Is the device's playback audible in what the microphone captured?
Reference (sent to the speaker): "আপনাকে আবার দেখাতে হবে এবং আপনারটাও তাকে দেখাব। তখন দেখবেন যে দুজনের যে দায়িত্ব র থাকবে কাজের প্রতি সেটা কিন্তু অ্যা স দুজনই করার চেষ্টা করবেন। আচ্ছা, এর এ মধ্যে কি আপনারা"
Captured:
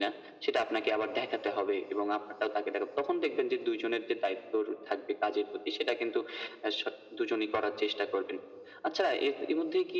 Yes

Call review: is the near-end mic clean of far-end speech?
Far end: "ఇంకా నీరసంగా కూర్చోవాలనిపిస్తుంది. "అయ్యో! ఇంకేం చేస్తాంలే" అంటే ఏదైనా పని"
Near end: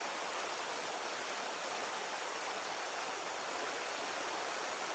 Yes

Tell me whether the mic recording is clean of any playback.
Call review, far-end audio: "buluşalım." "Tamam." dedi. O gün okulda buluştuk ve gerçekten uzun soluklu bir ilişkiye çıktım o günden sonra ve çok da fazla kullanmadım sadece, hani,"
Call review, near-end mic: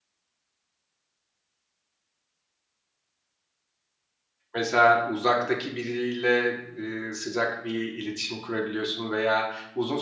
Yes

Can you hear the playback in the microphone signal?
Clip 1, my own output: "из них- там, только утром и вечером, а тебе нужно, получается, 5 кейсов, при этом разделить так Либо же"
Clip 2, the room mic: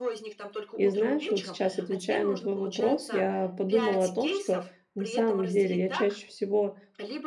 Yes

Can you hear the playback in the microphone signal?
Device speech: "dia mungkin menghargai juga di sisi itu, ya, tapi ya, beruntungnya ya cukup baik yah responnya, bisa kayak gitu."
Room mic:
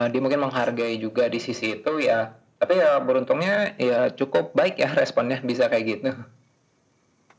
Yes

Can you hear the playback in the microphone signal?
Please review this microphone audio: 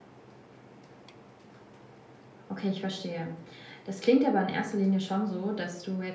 No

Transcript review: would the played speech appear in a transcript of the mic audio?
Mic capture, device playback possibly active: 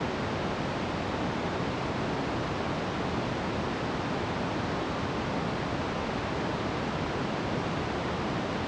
No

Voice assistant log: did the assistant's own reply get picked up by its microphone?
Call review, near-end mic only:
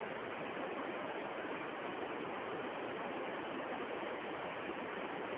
No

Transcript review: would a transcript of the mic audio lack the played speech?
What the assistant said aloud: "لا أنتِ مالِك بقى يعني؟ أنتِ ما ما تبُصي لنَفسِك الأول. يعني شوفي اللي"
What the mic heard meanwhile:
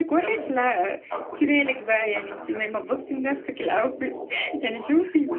No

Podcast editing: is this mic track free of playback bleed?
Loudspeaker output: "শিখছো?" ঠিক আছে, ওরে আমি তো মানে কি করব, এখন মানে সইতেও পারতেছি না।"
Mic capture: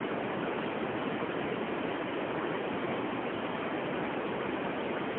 Yes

